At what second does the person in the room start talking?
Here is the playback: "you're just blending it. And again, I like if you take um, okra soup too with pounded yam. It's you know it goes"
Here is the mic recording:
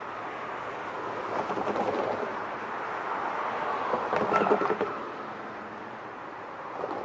none

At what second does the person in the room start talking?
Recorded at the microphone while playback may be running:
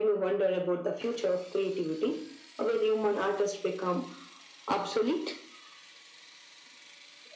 none

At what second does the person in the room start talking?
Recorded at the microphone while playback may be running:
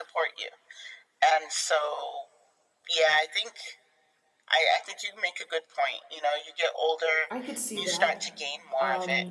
7.3 s

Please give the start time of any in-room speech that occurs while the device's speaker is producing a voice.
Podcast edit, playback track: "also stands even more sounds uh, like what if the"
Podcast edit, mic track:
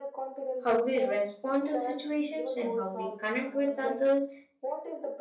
0.6 s

